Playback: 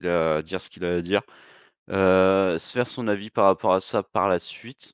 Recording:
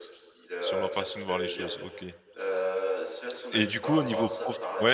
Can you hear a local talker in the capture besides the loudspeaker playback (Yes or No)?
Yes